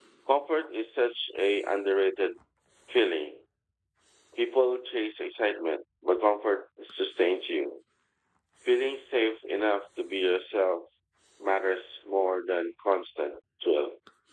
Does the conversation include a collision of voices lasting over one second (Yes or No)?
No